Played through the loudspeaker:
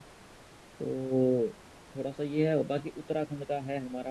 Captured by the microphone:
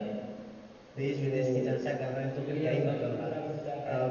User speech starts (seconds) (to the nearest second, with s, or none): 1 s